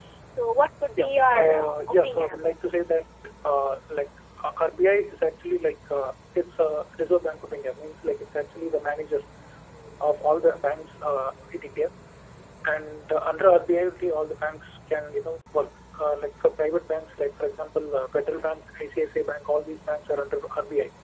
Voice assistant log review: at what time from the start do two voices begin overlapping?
1 s

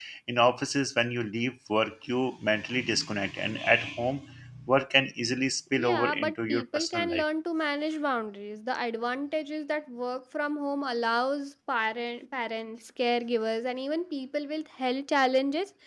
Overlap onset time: 6 s

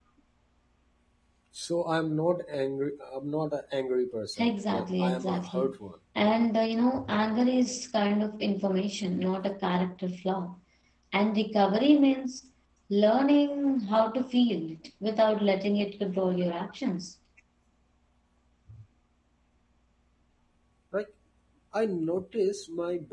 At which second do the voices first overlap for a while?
4 s

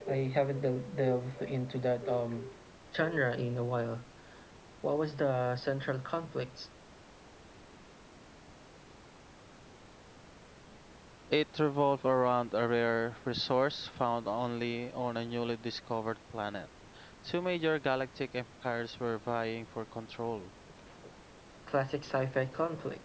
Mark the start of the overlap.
none

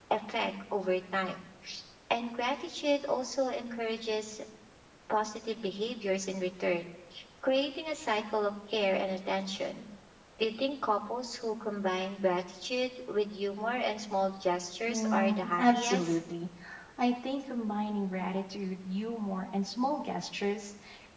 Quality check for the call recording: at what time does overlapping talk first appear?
15 s

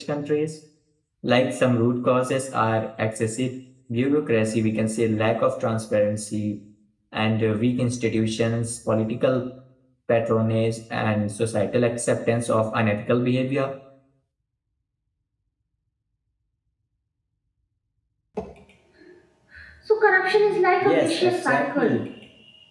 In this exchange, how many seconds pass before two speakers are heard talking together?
21 s

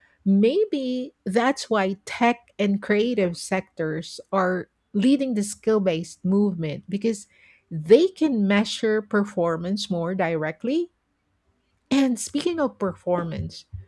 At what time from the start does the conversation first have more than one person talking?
none

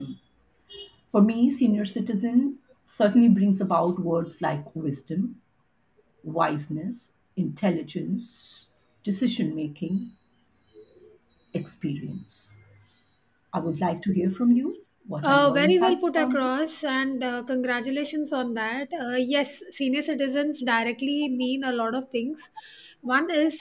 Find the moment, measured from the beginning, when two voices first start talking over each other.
15 s

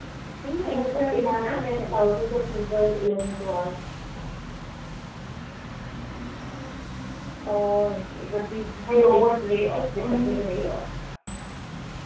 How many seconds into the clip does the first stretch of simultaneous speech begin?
1 s

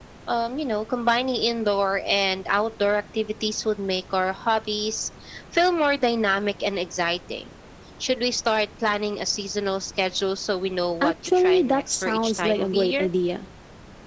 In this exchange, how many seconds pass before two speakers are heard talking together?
11 s

